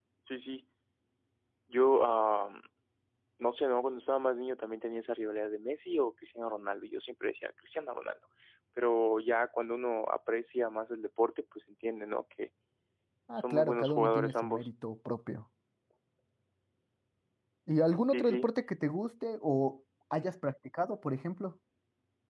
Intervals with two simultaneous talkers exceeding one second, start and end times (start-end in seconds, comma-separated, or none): 13.4-14.7